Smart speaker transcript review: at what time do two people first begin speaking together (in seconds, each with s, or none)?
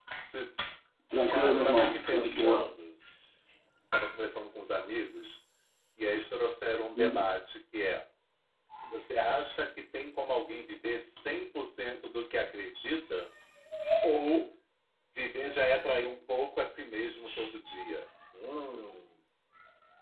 1.3 s